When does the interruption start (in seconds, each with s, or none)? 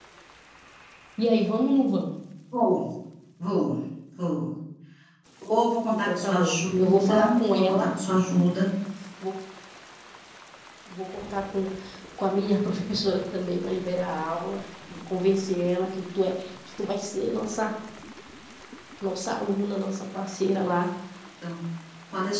5.9 s